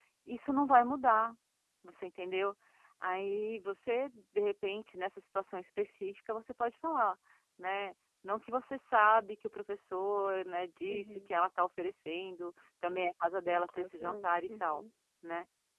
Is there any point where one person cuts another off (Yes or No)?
Yes